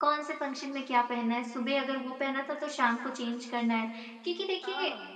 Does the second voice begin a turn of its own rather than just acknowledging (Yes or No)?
No